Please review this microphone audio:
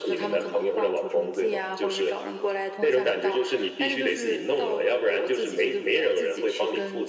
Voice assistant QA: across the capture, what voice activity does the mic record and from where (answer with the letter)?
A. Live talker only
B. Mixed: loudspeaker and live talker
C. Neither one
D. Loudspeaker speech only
D